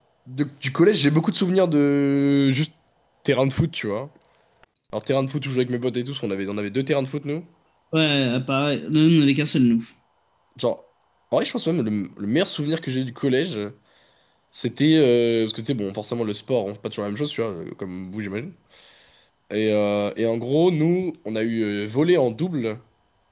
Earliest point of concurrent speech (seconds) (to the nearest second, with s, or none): none